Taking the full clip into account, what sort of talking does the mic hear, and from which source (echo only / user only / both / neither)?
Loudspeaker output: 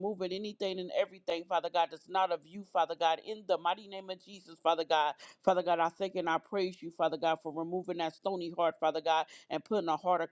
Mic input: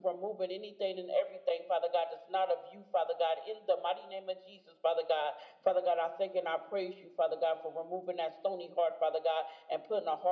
echo only